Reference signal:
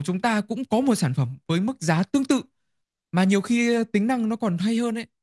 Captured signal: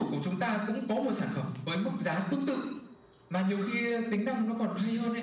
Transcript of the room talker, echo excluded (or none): none